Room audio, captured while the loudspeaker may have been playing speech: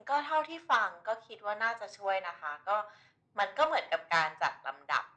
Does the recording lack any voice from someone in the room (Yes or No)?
Yes